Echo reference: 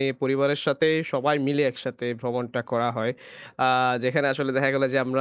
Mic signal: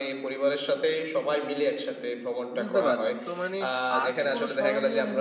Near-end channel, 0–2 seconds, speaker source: echo only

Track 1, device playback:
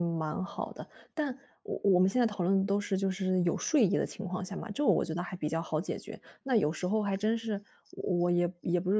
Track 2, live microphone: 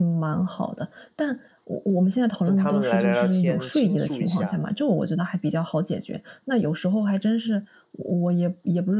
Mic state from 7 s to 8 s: echo only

